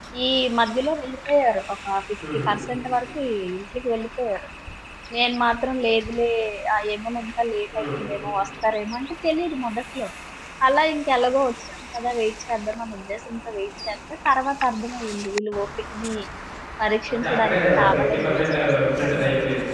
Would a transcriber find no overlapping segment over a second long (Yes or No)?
No